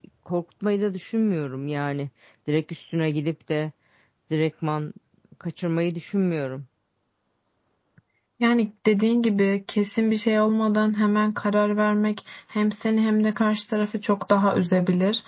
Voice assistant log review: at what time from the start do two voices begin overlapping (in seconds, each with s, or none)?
none